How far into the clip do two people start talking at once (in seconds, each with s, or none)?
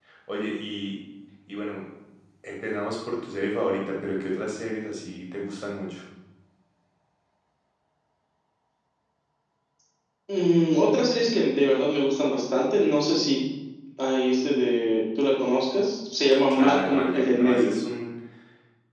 16.5 s